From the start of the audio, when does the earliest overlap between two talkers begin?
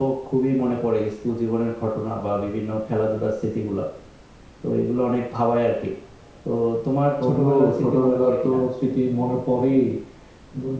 7 s

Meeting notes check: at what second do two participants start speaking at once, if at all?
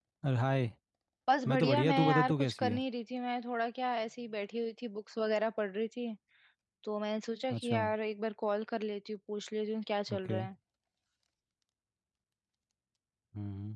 1 s

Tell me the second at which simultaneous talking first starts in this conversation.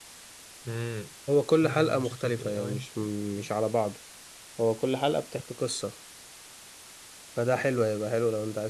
2 s

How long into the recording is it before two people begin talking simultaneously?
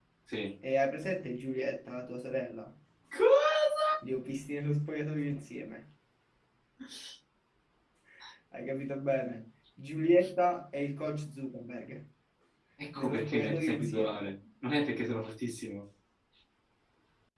13 s

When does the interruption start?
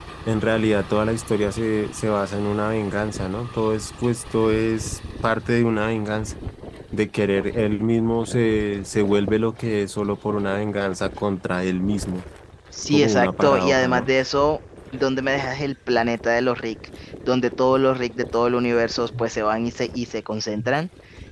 13 s

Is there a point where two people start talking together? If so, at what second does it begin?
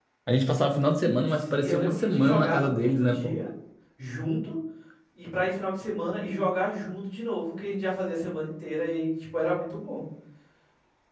1 s

